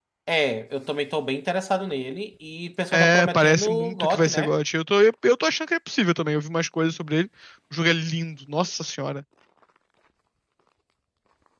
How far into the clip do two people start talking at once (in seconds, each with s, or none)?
2.9 s